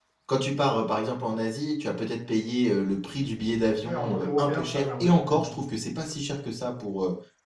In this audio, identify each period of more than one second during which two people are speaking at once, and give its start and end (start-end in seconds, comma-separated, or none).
3.8-5.7